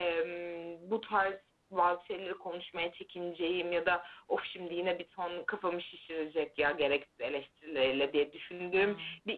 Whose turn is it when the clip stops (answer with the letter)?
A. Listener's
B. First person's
B